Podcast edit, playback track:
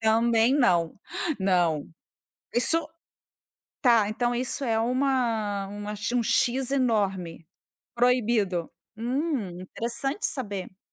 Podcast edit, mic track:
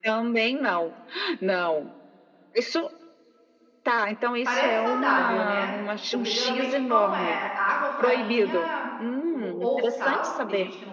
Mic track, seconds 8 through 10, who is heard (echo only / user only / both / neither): both